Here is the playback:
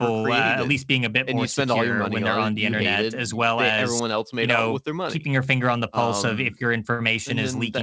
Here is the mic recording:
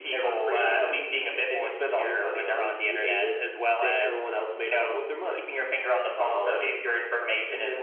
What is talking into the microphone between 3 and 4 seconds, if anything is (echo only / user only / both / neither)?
echo only